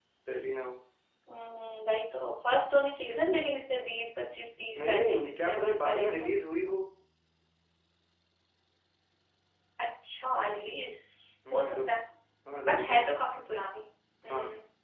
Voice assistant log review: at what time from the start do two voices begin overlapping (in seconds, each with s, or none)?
4.8 s